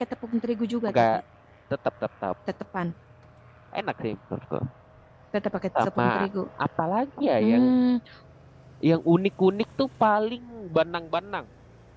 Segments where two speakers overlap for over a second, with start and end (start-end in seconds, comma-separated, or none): none